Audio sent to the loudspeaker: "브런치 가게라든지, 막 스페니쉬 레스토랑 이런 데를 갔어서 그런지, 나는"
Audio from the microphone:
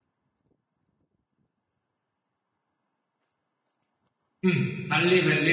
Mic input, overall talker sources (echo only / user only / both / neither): user only